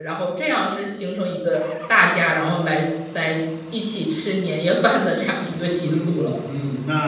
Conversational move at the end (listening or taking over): taking over